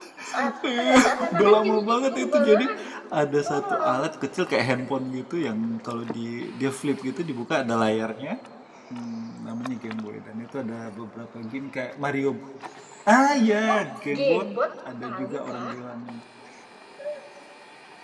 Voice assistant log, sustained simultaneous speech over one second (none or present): present